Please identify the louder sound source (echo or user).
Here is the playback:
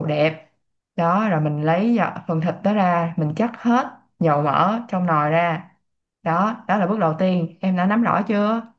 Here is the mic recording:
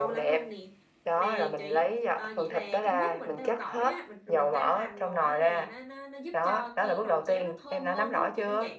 echo